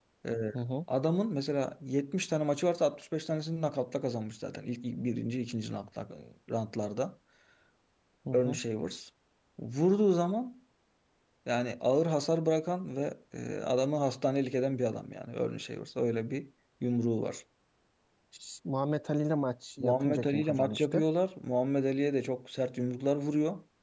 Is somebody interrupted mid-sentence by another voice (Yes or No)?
Yes